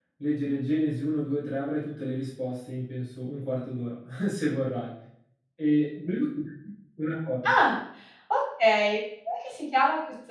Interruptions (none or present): none